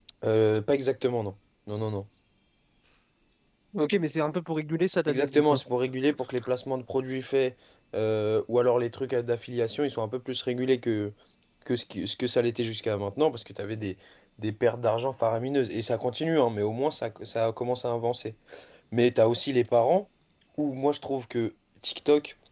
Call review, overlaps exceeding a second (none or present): none